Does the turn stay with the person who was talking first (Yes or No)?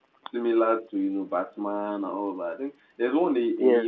Yes